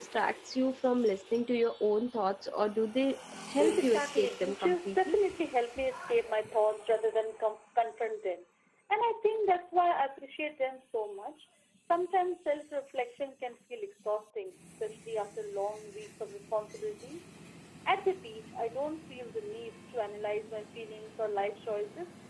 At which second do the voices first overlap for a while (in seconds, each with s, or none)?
3.4 s